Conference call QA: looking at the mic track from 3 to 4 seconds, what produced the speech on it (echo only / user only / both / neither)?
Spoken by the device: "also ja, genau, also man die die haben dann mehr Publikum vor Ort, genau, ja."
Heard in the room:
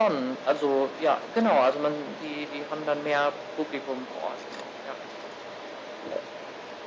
echo only